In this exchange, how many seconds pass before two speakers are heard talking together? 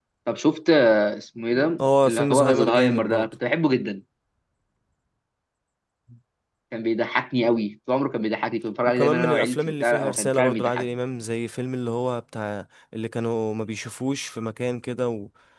2 s

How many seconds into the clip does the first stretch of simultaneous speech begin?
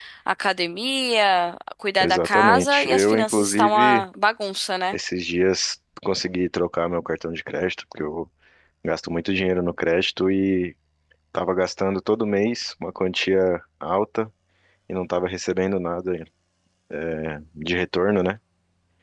2 s

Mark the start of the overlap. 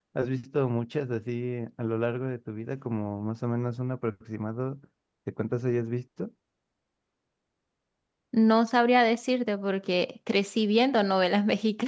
none

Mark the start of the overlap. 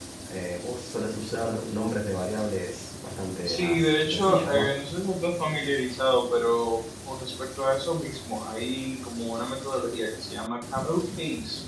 3 s

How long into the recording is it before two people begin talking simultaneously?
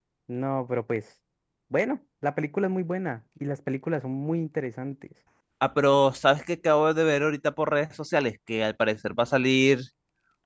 none

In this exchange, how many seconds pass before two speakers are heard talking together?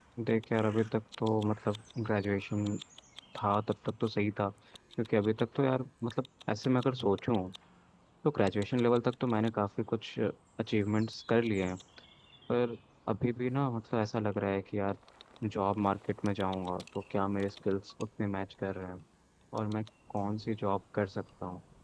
none

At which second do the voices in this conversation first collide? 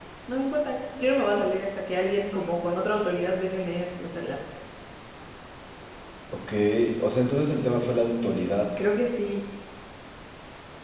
none

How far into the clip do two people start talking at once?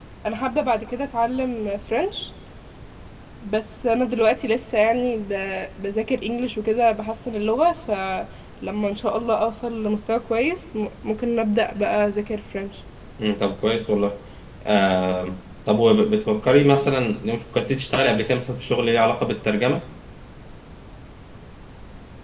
none

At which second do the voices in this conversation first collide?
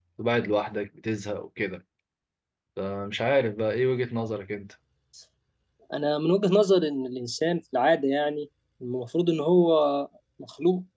none

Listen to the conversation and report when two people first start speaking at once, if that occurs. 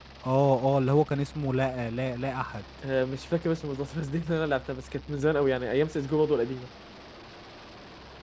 none

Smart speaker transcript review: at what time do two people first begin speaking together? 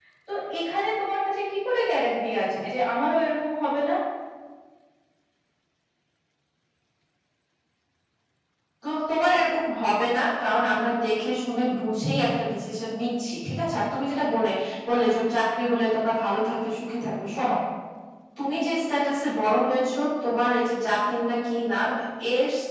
none

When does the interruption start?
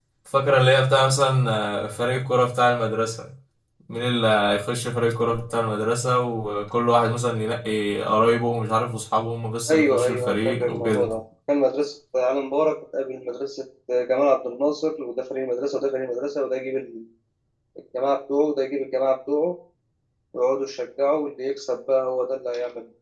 10 s

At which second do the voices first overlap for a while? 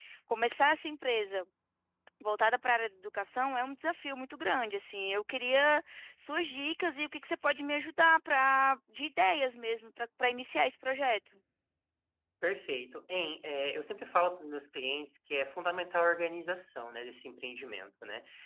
none

